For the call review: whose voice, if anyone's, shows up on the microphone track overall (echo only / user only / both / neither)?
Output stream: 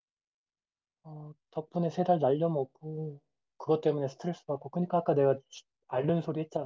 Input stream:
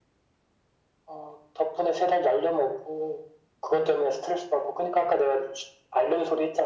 echo only